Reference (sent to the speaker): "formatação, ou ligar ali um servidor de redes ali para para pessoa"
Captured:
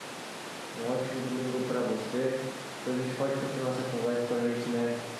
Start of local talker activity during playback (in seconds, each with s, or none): 0.7 s